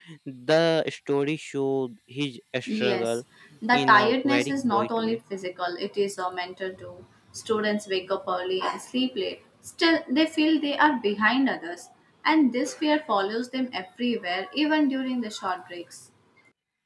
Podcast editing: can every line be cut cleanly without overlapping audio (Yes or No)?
No